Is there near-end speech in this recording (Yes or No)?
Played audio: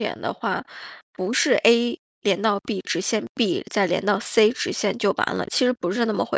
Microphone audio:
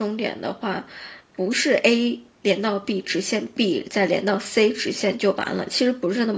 No